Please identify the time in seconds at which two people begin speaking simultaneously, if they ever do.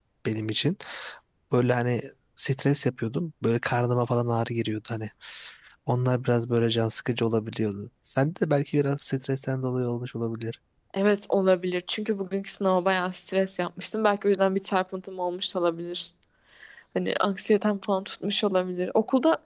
none

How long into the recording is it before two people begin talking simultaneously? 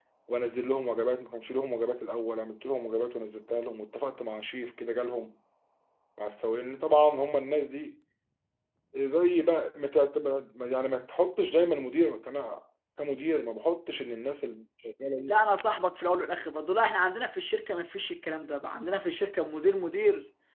none

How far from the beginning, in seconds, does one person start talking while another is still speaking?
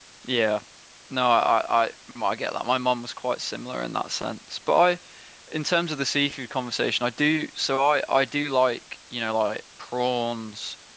none

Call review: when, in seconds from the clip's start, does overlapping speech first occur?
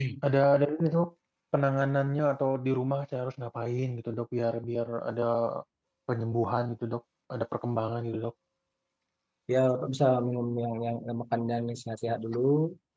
none

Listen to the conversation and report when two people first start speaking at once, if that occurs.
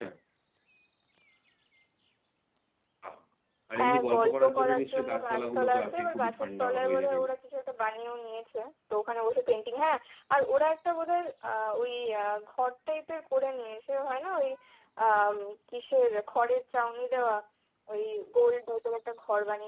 3.8 s

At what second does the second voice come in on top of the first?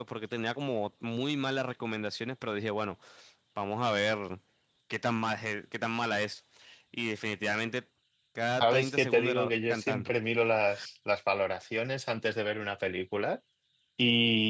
8.6 s

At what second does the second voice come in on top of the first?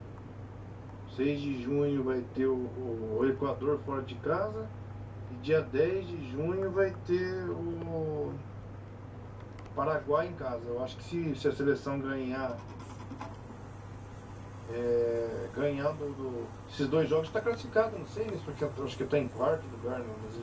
none

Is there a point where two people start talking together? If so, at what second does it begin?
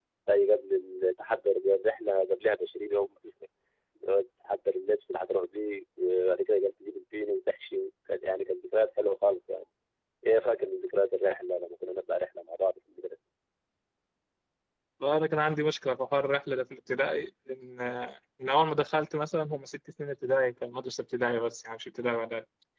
none

